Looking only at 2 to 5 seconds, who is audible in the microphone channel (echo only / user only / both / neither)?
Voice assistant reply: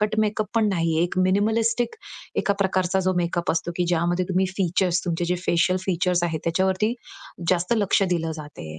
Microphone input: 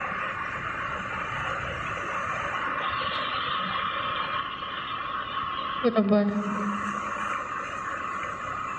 neither